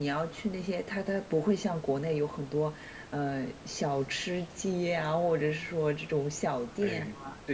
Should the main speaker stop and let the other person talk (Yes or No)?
Yes